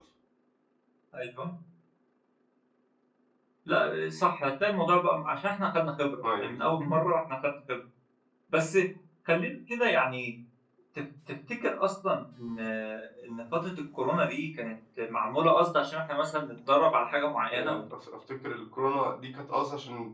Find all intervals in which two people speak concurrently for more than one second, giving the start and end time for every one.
none

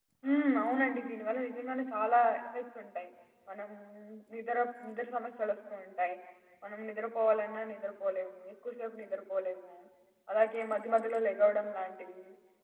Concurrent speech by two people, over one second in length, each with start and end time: none

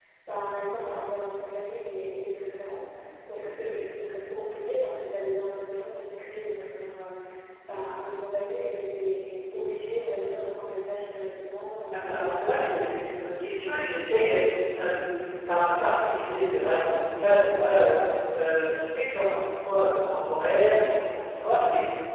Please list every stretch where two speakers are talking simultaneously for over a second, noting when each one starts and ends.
11.9-13.4

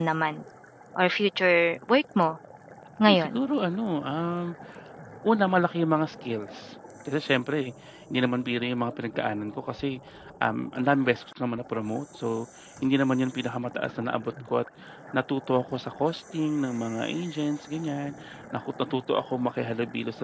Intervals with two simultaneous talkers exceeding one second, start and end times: none

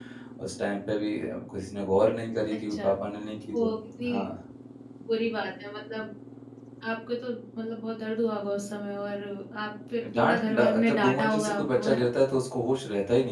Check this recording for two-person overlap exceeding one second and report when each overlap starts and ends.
10.2-12.0

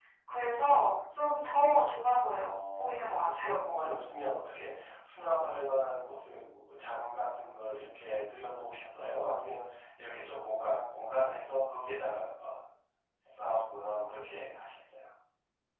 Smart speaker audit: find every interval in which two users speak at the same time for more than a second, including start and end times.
2.2-3.5

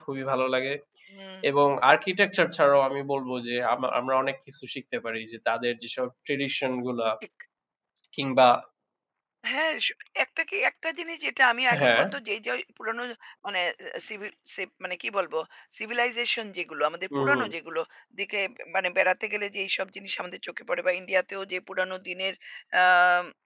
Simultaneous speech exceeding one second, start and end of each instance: none

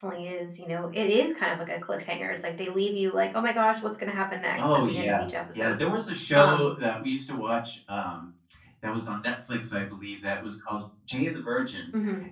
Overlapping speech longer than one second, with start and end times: 4.6-5.8

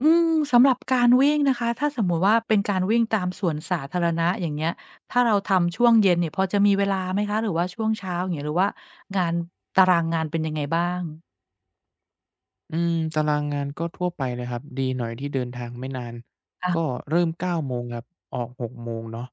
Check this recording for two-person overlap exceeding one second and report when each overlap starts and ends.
none

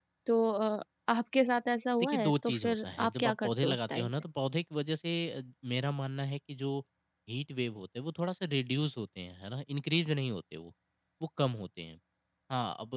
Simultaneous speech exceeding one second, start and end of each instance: 2.0-4.1

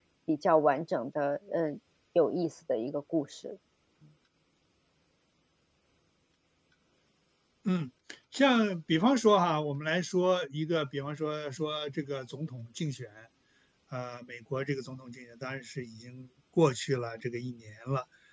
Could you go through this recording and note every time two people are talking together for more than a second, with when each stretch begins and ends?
none

